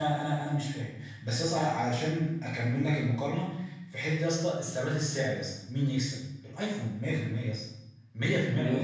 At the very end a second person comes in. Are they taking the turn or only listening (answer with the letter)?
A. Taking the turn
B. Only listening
A